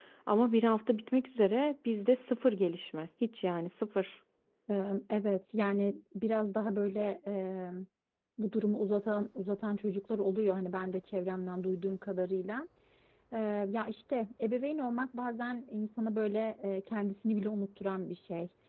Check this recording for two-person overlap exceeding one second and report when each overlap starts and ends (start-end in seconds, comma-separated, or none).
none